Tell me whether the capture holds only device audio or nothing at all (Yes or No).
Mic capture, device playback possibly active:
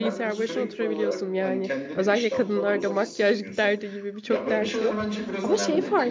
No